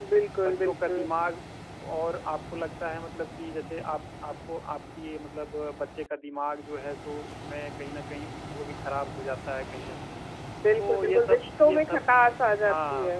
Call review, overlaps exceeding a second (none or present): present